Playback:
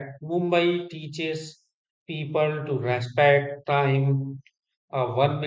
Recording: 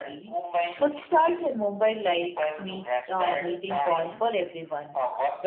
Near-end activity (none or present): present